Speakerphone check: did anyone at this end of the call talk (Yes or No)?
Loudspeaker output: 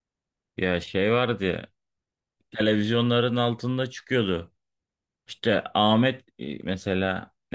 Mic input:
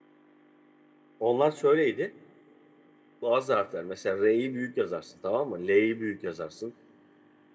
Yes